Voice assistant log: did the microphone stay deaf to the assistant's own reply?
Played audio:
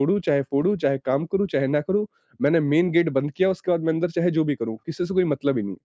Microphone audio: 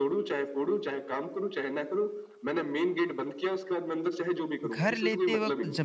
No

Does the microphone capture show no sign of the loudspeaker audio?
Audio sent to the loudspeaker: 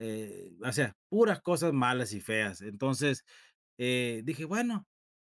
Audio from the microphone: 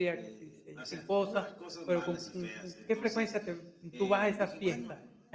No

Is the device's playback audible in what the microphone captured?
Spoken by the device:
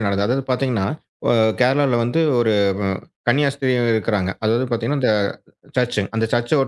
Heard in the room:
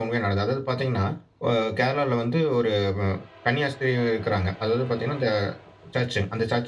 Yes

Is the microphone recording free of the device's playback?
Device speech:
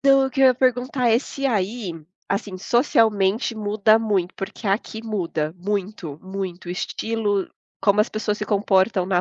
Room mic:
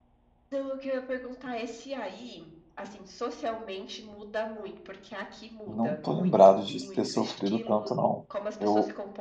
No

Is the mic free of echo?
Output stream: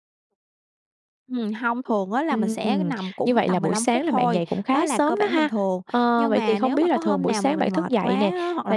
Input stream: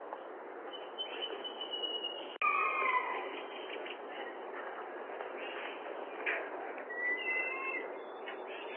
Yes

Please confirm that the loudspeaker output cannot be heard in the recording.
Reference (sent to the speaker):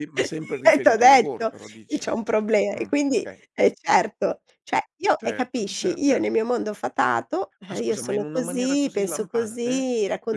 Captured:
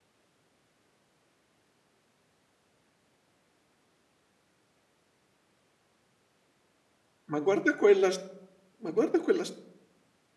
Yes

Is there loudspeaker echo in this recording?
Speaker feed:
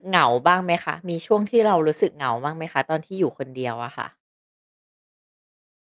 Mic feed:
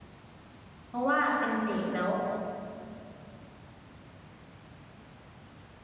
No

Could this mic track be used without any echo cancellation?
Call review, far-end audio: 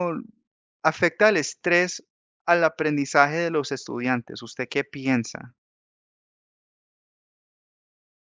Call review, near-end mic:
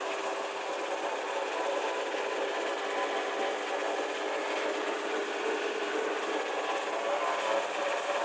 Yes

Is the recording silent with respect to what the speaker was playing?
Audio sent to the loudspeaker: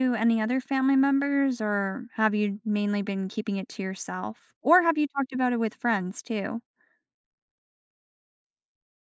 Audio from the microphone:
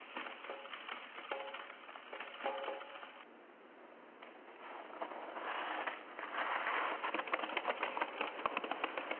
Yes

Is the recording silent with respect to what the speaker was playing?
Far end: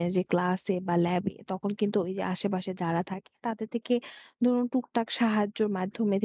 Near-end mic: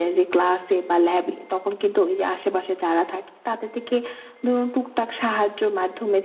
No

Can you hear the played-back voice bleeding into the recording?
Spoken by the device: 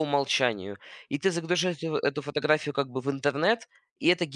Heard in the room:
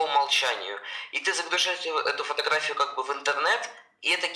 Yes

